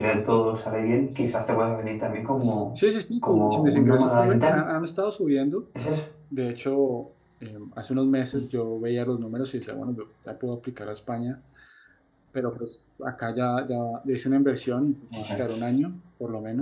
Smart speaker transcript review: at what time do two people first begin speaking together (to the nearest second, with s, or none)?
3 s